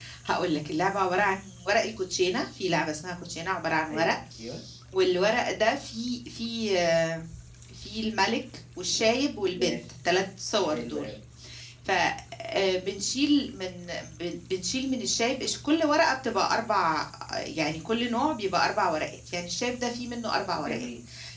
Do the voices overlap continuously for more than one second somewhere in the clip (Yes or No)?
No